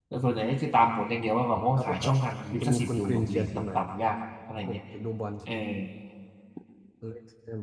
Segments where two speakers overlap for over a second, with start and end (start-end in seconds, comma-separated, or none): 2.6-3.9